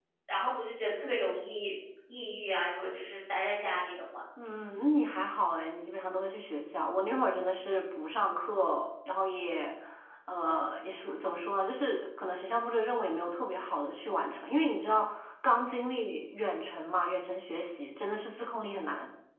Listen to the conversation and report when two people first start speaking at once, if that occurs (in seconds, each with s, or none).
none